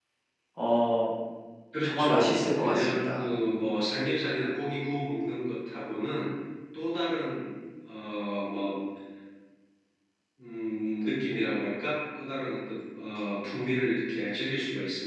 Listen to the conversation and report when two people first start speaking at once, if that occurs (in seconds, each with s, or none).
1.8 s